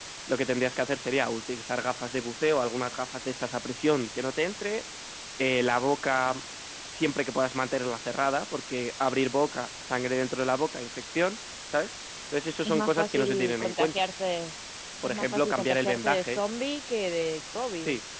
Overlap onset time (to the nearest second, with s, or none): 13 s